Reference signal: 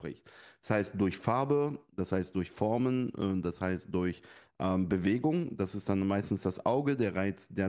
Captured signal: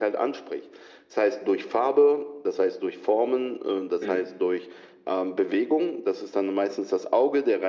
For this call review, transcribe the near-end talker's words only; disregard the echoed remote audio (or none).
Mhm.